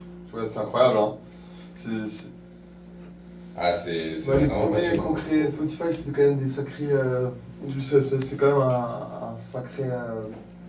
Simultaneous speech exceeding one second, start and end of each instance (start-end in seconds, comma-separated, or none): 4.2-5.6